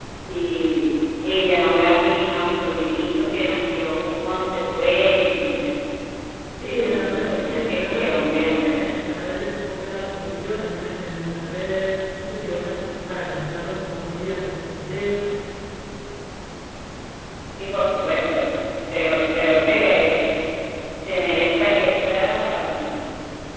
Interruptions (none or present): present